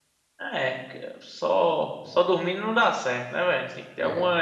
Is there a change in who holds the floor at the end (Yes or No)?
No